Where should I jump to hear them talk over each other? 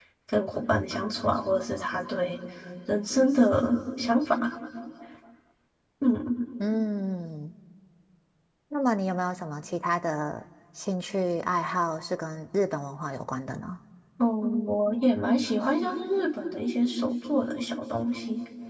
none

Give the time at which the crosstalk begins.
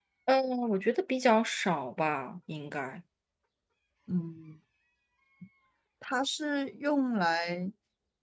none

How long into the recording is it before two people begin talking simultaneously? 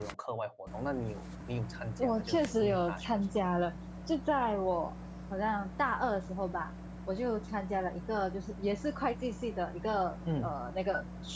2 s

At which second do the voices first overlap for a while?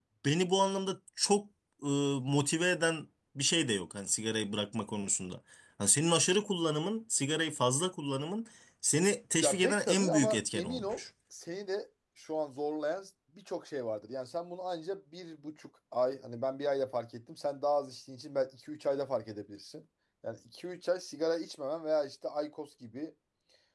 9 s

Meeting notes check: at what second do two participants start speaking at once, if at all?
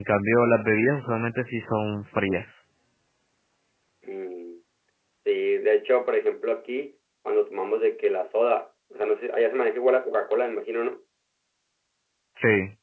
none

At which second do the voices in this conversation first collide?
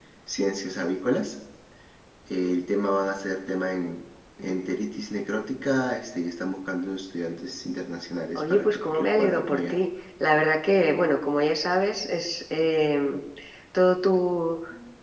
8 s

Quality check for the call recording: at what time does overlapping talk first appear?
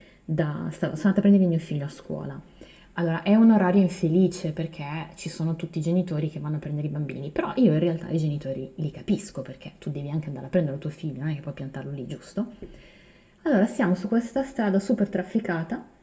none

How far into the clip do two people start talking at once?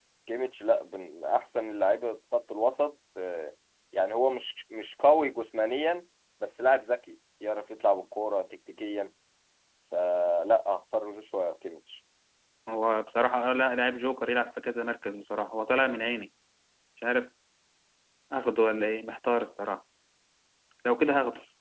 none

